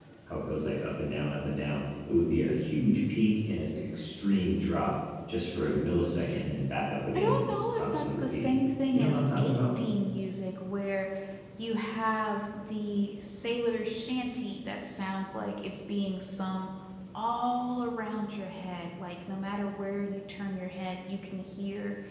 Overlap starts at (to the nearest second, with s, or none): 7 s